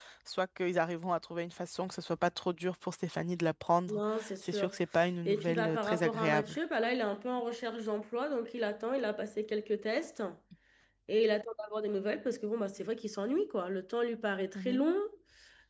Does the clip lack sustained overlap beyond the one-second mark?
No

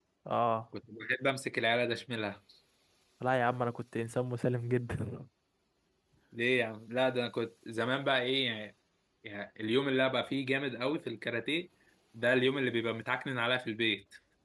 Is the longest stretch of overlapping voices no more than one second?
Yes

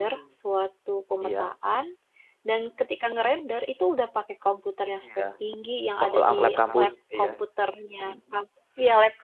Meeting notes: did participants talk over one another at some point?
Yes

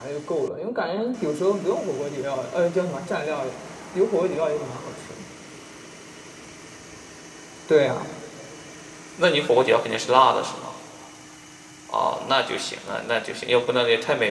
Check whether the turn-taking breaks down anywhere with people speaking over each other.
No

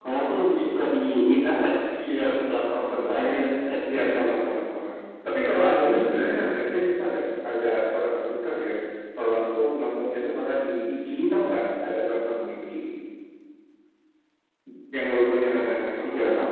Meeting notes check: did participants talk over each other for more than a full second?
Yes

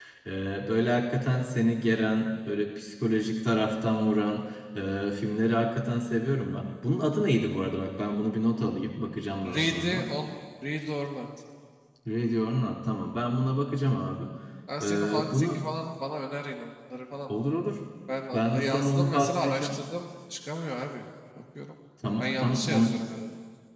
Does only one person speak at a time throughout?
No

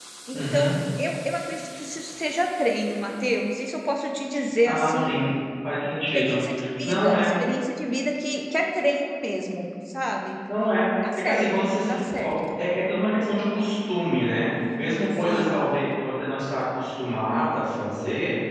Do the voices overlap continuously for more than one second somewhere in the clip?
Yes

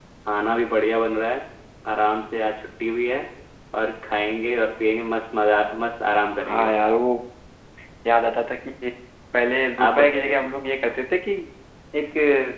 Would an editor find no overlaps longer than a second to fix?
Yes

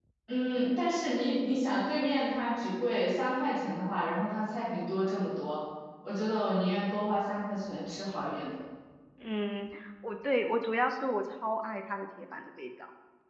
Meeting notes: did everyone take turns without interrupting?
Yes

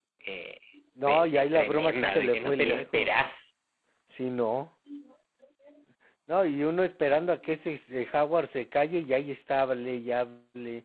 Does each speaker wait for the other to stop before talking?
No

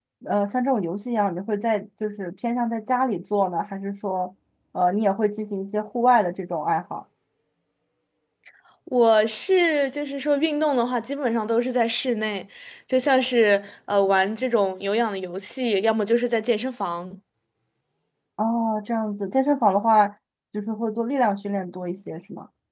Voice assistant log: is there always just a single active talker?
Yes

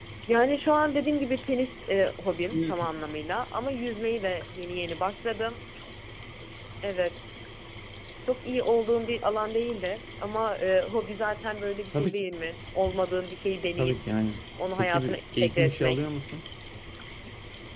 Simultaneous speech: Yes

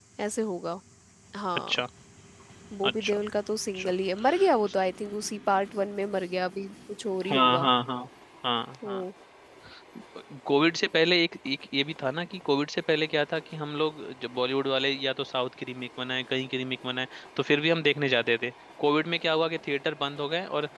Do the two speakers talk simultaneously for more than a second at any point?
No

